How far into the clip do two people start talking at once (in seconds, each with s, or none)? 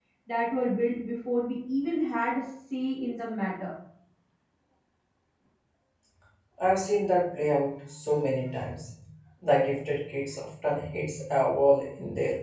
none